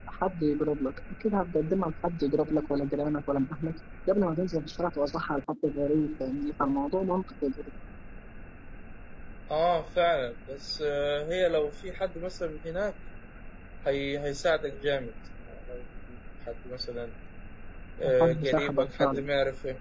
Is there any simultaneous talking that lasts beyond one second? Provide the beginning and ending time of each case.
18.0-19.3

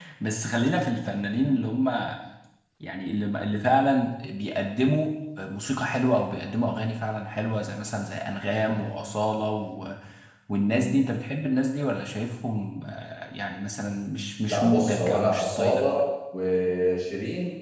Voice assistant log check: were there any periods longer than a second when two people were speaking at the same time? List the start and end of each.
14.5-15.8

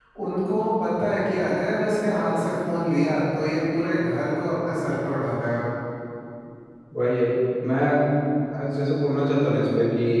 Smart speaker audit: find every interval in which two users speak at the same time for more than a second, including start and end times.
none

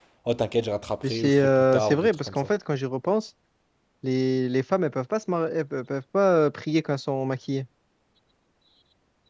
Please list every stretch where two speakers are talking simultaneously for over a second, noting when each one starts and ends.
1.0-2.5

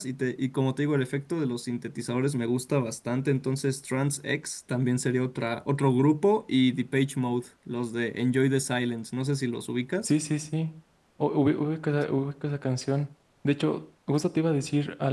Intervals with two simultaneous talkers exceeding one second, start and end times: none

